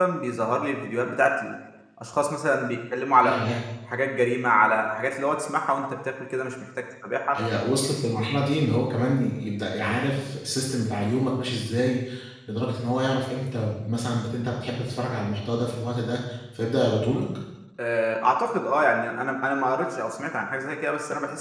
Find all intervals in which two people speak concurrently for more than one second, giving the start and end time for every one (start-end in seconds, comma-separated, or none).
none